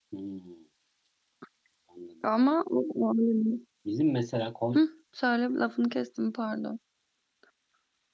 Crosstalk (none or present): none